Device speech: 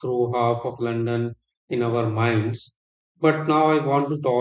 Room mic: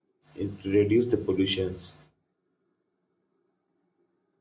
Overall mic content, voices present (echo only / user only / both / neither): user only